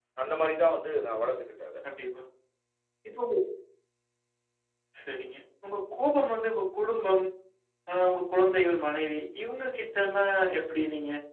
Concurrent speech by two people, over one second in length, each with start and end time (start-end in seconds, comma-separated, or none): none